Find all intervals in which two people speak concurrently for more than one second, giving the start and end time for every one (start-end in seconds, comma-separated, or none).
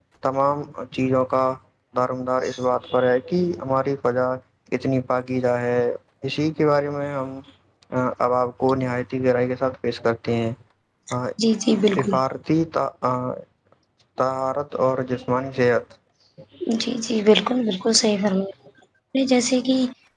none